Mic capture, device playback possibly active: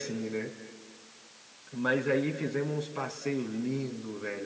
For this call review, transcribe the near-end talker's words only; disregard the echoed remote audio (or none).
none